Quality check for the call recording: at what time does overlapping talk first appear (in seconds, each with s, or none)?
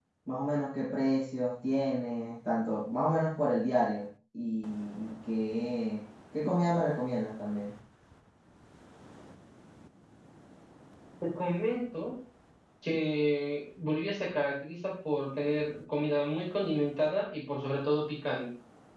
none